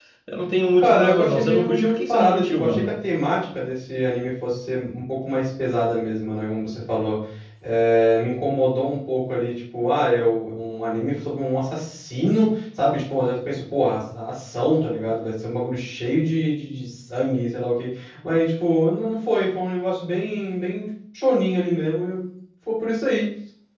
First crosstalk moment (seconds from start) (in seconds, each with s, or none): 0.8 s